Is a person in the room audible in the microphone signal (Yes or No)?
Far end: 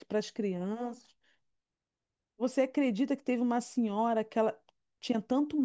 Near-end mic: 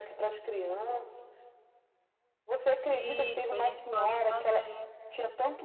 Yes